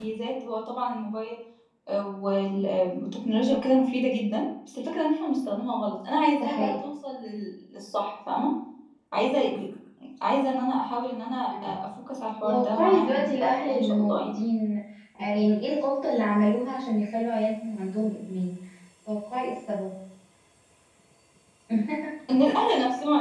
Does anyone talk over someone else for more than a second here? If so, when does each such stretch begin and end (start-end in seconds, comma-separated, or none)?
12.4-14.4